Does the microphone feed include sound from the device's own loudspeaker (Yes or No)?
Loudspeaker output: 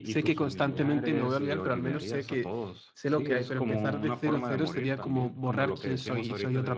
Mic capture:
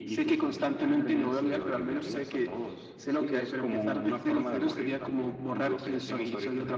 Yes